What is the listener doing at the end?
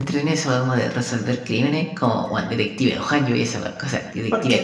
taking over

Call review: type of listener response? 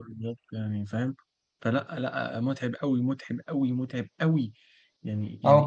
taking over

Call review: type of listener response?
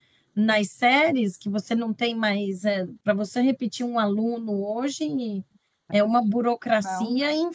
listening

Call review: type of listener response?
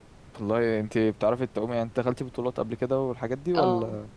taking over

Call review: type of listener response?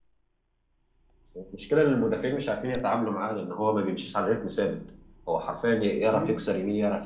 listening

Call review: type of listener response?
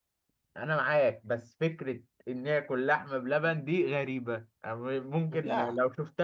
listening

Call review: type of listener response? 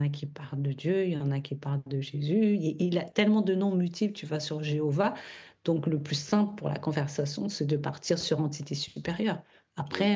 taking over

